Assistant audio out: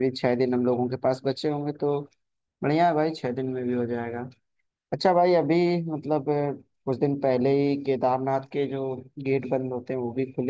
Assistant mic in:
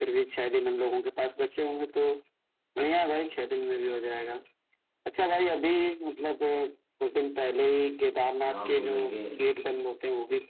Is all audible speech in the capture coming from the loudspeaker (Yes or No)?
No